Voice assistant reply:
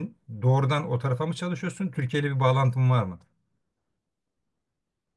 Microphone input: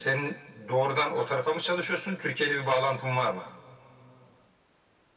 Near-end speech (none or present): none